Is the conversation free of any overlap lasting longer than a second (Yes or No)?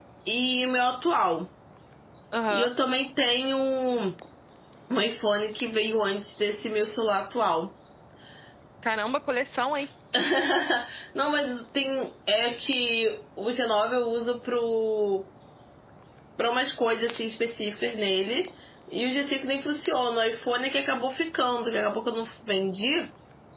Yes